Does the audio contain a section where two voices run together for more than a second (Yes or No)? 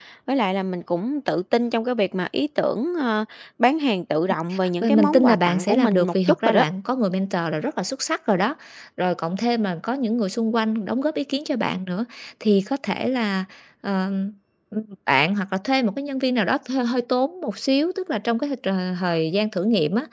Yes